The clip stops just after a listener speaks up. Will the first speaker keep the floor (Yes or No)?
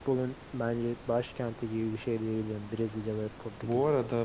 No